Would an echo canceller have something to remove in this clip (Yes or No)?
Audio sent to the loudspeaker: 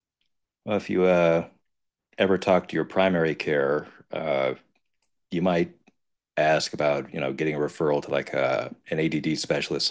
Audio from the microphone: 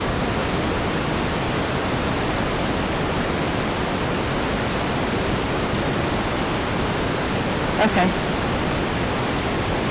No